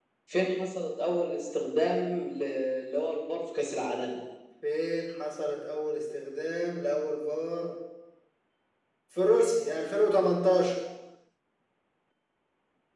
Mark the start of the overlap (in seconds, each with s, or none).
none